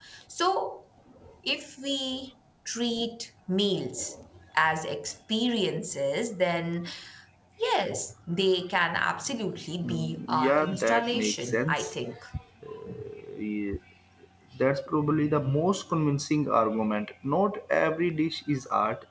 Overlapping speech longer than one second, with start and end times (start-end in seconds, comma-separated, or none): 9.8-11.9